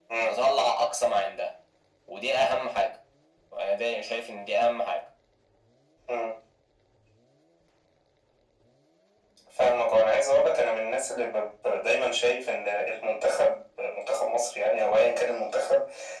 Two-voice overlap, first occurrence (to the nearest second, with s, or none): none